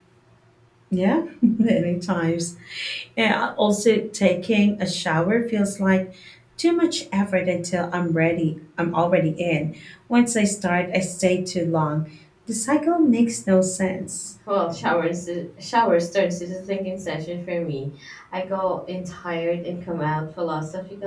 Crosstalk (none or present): none